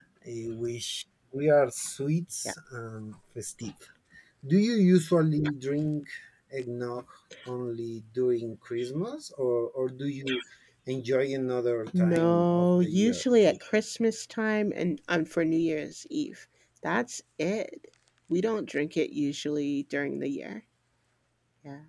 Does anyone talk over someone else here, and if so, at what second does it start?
11.9 s

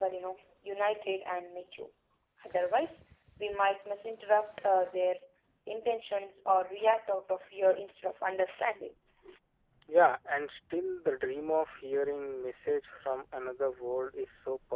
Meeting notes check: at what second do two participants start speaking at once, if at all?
none

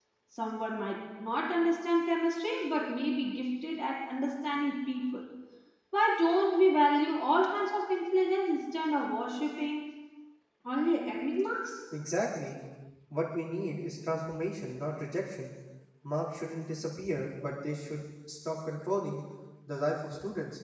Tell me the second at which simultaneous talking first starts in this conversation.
none

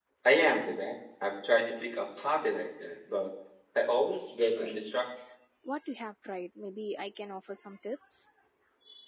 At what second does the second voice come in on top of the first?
none

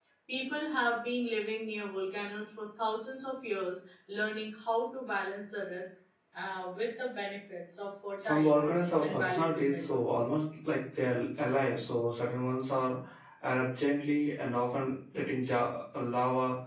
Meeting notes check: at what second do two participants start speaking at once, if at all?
8.2 s

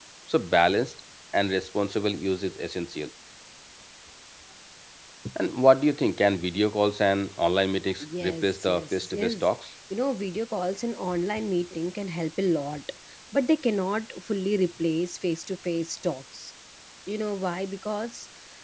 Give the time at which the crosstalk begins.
8.0 s

